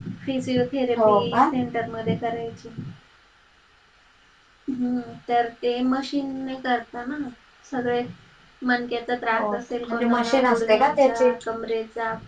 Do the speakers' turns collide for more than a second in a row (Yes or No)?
Yes